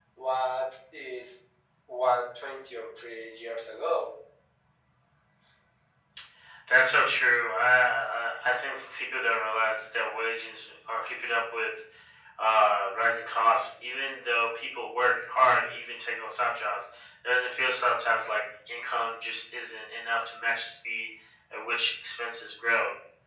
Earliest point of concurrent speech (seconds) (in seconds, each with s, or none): none